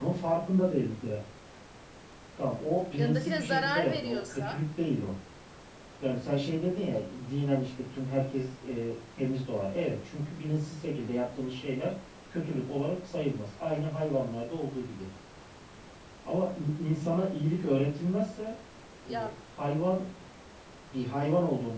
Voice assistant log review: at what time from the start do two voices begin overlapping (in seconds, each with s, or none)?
3.0 s